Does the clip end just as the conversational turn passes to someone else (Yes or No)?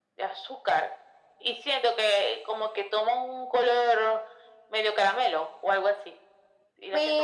Yes